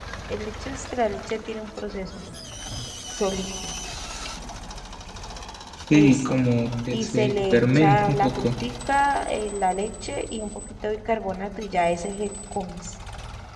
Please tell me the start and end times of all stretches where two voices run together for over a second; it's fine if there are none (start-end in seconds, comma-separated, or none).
6.9-8.5